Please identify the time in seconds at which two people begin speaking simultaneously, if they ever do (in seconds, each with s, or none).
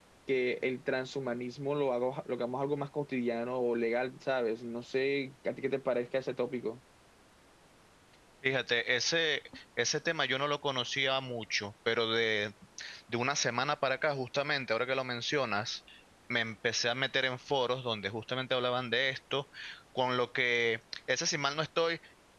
none